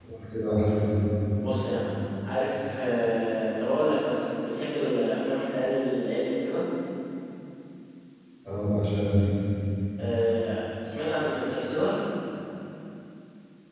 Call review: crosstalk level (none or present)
none